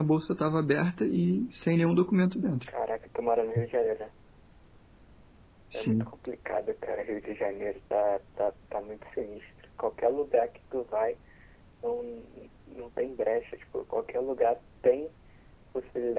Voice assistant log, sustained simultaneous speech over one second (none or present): none